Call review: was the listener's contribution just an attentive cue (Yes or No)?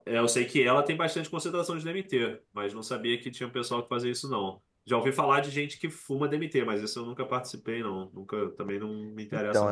No